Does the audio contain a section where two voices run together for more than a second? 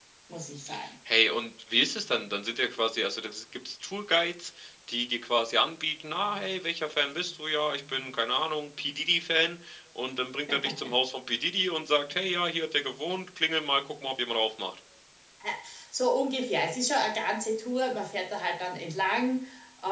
No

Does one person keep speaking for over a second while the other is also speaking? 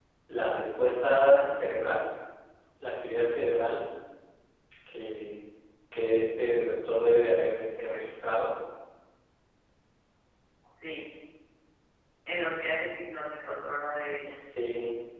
No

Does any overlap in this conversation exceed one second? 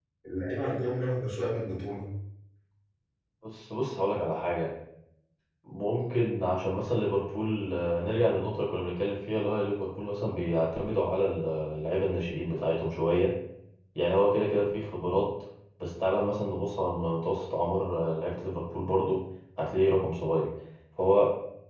No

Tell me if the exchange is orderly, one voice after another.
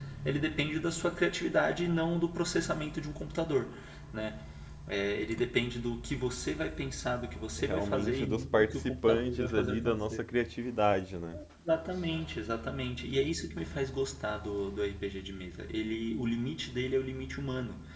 No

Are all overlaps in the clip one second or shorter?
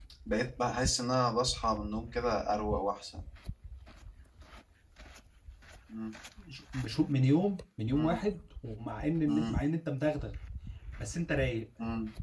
Yes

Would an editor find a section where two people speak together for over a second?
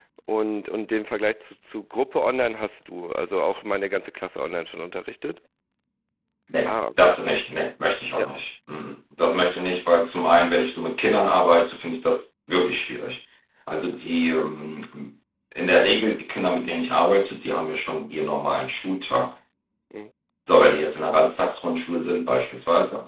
No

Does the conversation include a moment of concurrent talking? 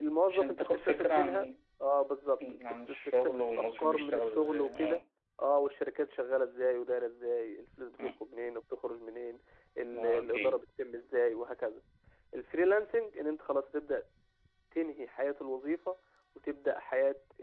Yes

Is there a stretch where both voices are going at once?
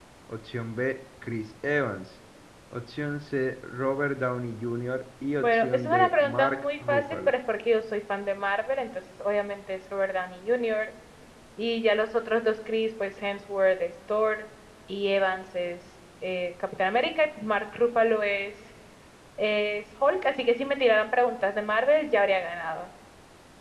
Yes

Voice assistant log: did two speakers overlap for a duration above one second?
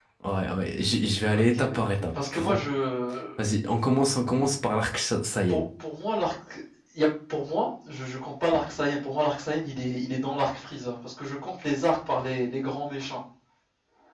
No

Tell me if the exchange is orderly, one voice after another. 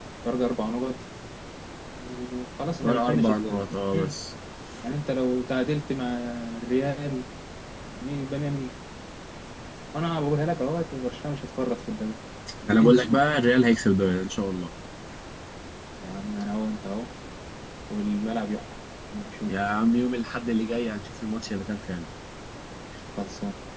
No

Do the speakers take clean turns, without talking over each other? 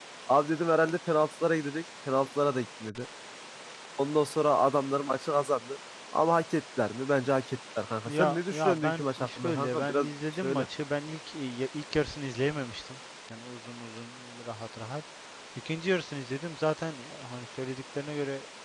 No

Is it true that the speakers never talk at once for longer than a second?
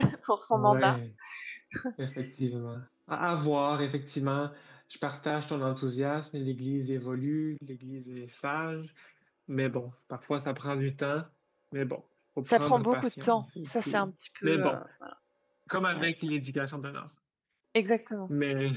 No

